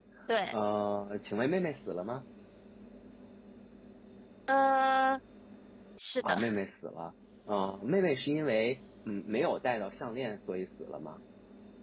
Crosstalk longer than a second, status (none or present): none